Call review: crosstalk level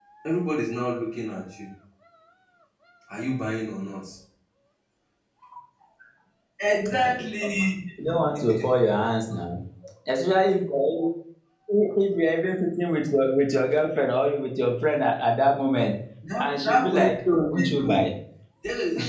present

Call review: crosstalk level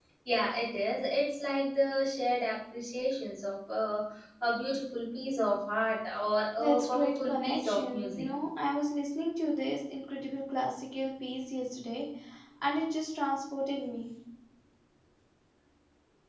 present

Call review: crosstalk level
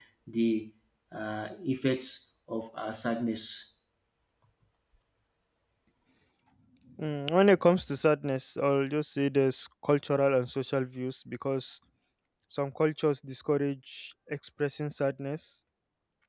none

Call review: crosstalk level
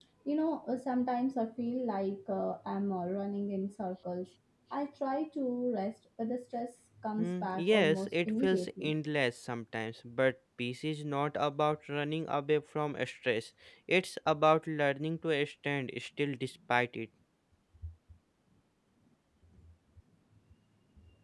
present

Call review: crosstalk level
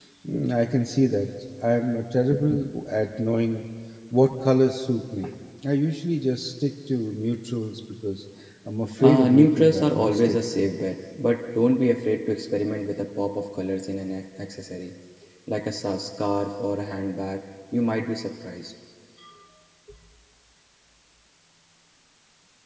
present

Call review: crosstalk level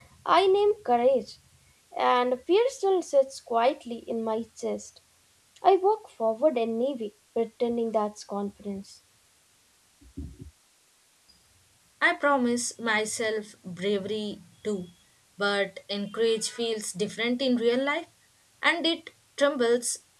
none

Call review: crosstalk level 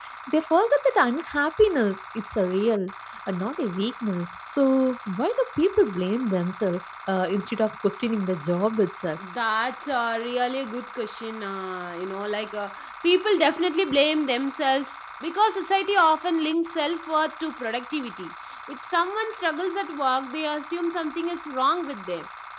none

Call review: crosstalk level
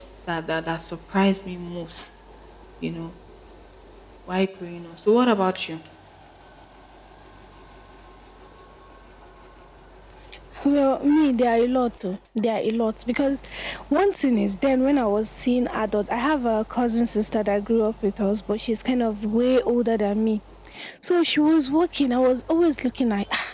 none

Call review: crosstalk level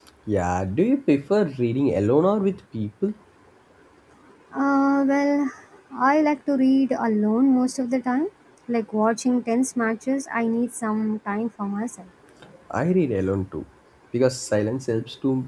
none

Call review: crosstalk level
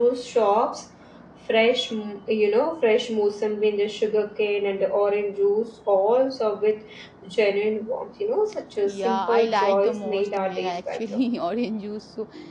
present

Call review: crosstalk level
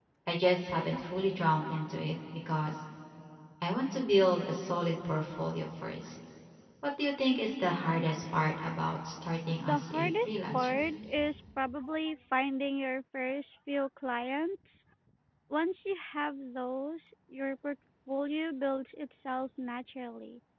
present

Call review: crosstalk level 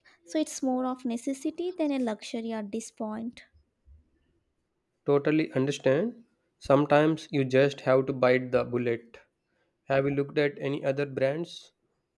none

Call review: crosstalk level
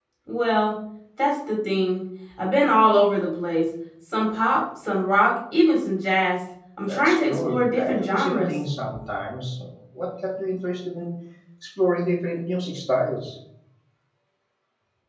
present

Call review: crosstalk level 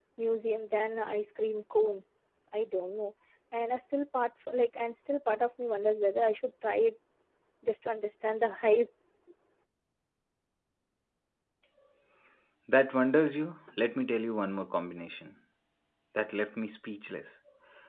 none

